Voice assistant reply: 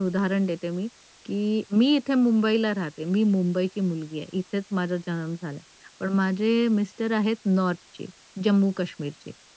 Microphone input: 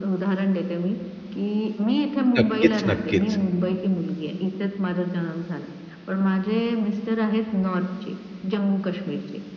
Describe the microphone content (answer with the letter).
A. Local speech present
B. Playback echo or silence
A